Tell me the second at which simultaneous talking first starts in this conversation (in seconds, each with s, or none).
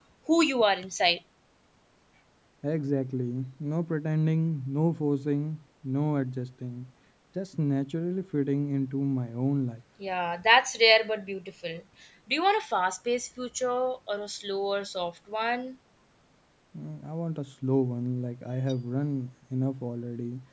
none